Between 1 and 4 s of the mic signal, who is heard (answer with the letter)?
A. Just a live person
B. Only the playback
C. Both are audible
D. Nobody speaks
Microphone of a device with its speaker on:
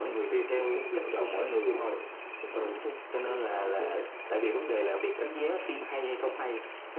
B